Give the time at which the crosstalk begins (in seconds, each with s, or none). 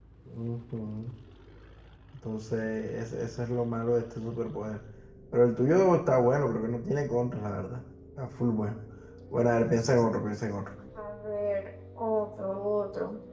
none